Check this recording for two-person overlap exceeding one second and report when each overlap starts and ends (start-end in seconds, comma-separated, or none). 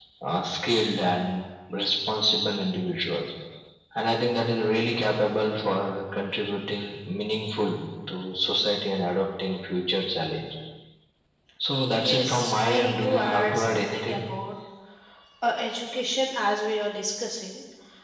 11.9-14.2